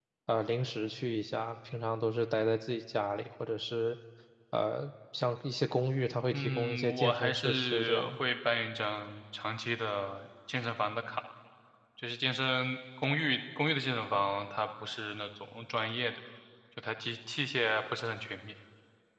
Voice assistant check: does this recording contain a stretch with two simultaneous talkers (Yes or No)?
Yes